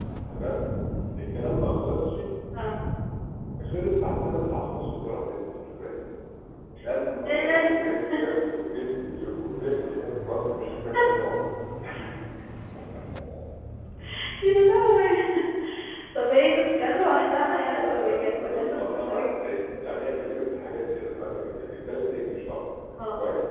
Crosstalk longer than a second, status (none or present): present